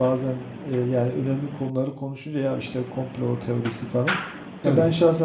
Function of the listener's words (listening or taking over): listening